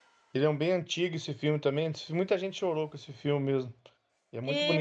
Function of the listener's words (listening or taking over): taking over